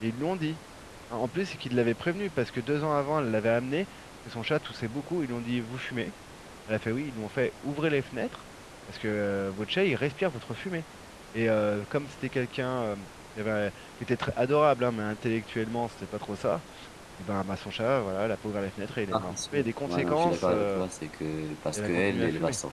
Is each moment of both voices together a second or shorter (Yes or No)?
No